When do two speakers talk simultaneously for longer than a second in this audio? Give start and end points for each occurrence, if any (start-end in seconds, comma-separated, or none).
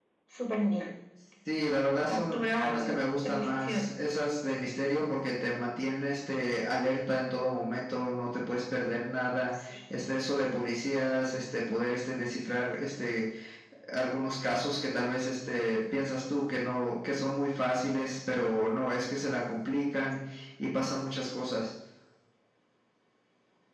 2.1-3.9